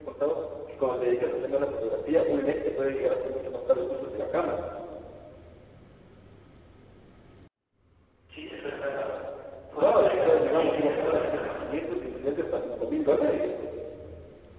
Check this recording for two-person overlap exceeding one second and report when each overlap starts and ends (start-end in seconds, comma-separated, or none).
9.7-11.6